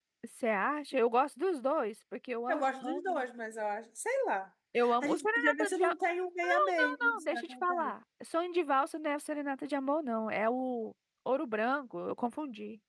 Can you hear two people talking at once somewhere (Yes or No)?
Yes